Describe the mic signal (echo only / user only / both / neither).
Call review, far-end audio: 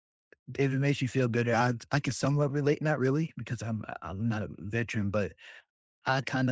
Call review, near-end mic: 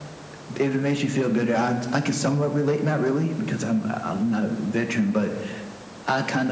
echo only